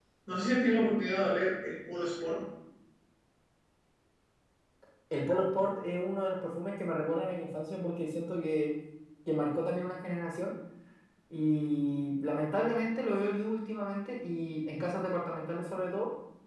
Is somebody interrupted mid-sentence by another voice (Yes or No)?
No